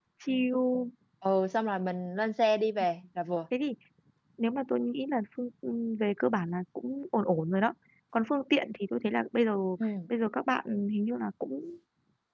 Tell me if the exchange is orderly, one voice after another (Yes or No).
Yes